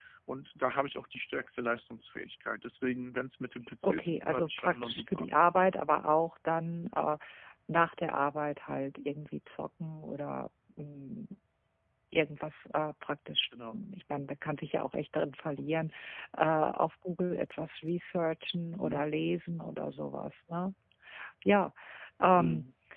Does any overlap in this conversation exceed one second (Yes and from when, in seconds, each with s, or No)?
Yes, from 3.8 s